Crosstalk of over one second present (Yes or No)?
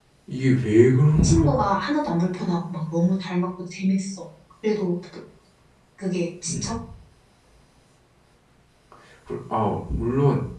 No